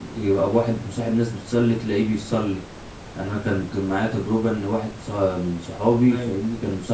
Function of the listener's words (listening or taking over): listening